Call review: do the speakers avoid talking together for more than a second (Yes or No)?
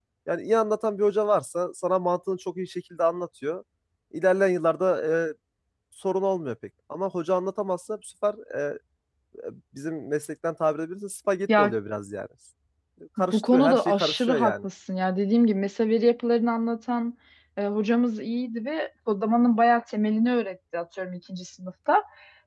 No